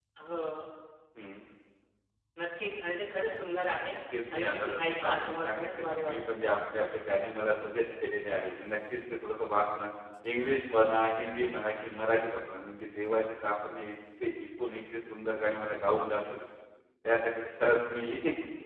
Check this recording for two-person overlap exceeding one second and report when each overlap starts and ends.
4.3-6.1

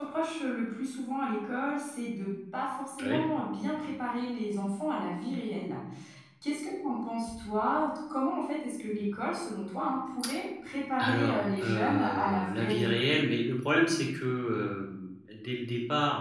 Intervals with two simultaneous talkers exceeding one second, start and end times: 11.0-12.9

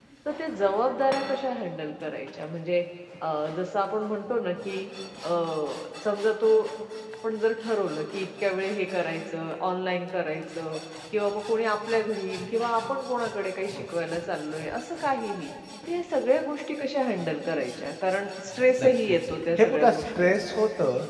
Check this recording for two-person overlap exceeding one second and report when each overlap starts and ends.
18.8-20.6

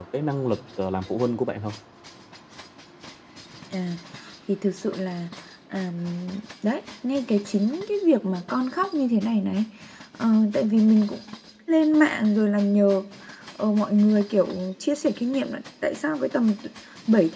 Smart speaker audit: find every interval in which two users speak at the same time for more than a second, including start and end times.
none

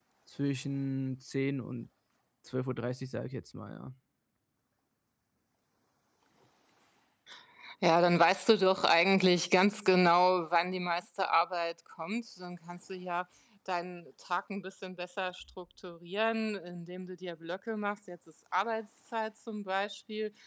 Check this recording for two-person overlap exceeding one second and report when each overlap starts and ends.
none

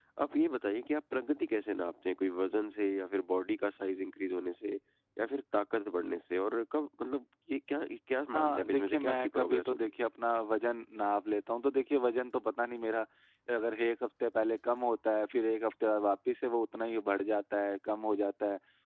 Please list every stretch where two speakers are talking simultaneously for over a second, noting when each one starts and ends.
8.3-9.9

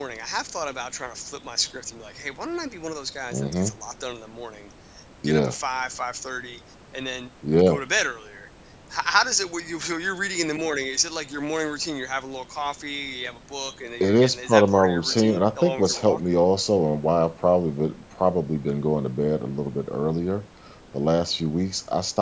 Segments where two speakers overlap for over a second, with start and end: 14.0-16.2

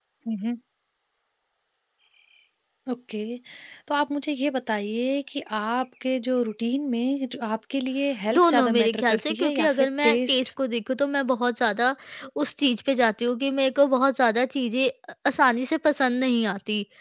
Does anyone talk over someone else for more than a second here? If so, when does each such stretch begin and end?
8.4-10.4

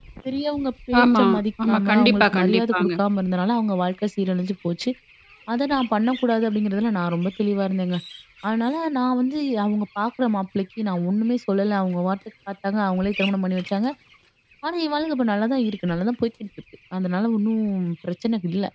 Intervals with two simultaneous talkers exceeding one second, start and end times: 1.7-2.9

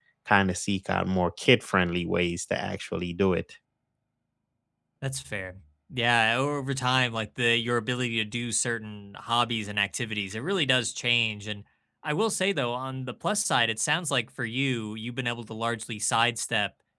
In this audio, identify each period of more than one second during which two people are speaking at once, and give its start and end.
none

